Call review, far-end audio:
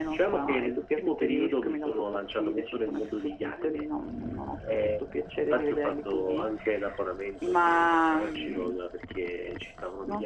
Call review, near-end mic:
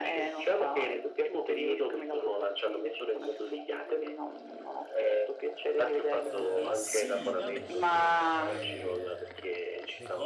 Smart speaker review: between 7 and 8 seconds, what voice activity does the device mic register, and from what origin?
both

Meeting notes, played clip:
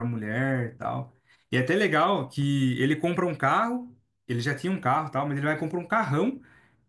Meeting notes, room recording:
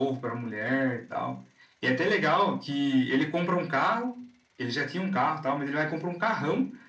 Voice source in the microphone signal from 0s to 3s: echo only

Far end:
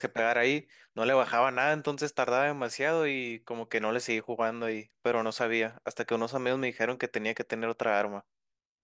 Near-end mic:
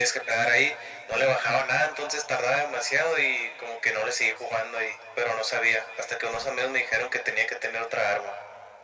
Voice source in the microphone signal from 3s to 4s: echo only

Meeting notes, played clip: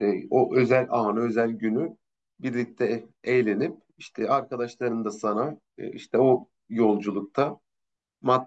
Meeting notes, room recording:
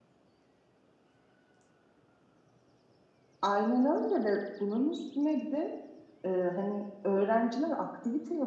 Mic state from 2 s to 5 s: user only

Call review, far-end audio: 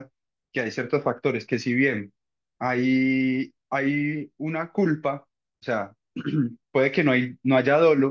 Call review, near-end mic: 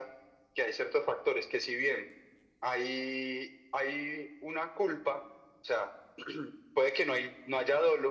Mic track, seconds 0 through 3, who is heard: echo only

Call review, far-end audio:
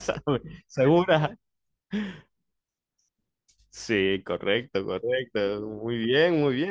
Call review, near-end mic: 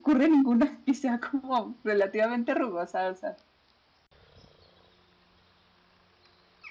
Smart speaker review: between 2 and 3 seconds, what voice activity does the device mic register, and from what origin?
user only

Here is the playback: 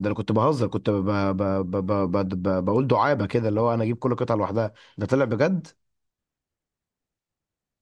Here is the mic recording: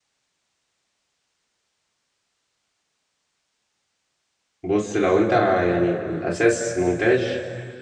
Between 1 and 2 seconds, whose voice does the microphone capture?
neither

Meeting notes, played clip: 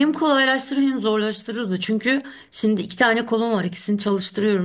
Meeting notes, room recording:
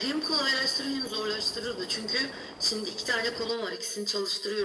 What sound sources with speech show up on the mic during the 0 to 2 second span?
echo only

